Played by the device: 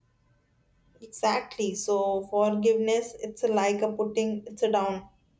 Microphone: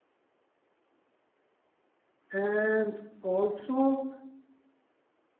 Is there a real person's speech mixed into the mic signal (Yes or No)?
Yes